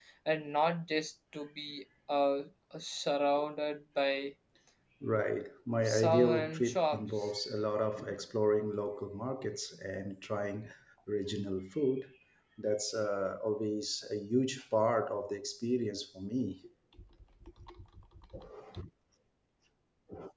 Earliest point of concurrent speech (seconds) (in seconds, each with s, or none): 5.8 s